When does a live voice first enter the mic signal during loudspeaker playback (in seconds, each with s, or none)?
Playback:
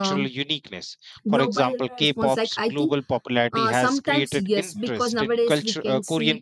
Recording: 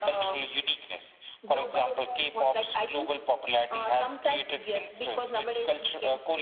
none